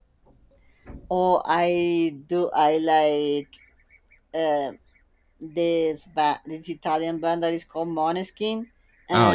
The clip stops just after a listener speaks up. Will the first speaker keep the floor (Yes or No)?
Yes